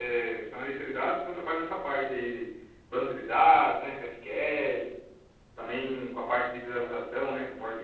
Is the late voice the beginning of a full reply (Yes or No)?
No